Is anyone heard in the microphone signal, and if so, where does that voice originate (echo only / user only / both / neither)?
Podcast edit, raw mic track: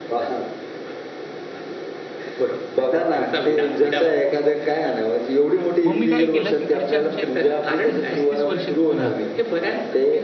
both